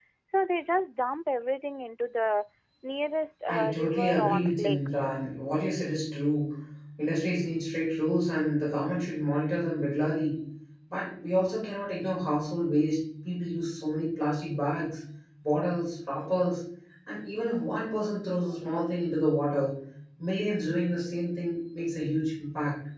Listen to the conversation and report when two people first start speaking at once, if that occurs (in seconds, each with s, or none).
3.5 s